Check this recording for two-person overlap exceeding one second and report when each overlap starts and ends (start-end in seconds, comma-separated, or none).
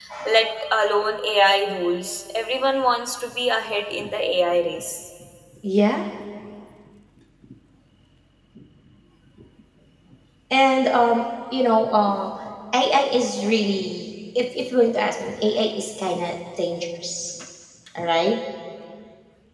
none